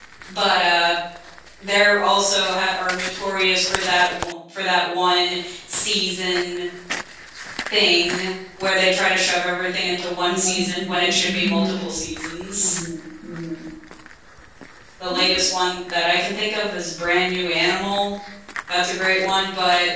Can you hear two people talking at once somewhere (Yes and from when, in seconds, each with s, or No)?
Yes, from 10.2 s